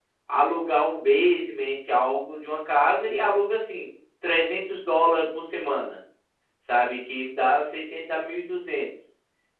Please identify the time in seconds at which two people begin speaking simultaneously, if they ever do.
none

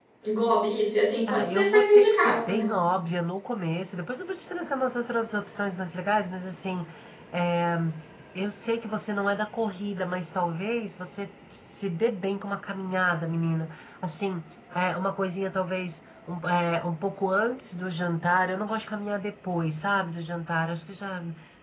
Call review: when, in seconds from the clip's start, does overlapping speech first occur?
1.3 s

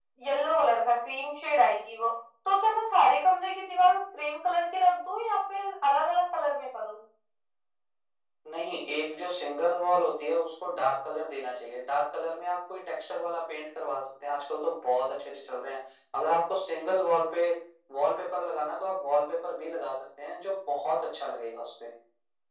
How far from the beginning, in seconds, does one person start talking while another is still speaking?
none

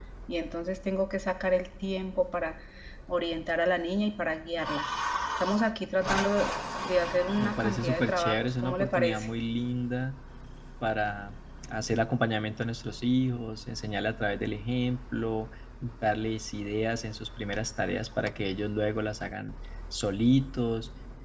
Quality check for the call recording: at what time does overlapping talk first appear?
7.4 s

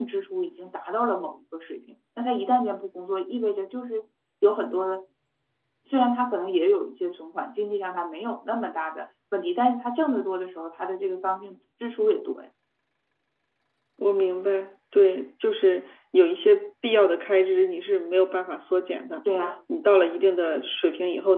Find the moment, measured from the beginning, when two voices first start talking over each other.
none

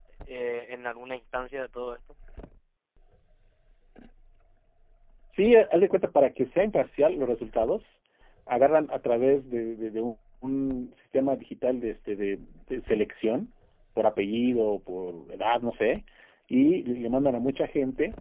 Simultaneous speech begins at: none

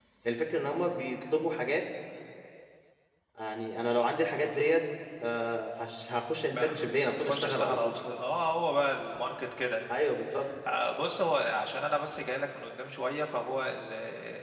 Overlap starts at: 6.5 s

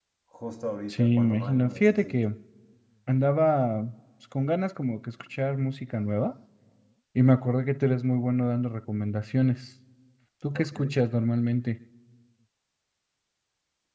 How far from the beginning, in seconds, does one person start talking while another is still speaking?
0.9 s

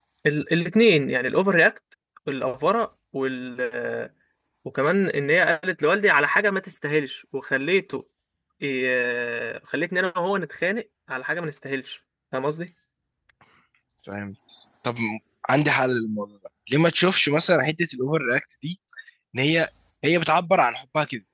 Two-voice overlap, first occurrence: none

